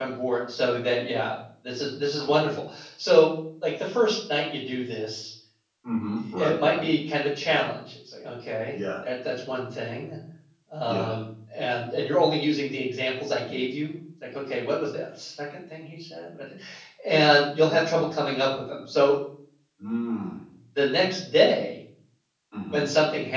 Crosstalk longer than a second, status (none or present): none